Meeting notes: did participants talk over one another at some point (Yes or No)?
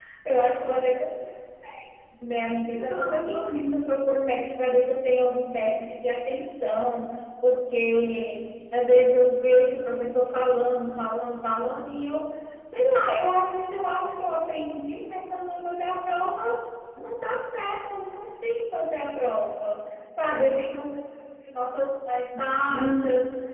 Yes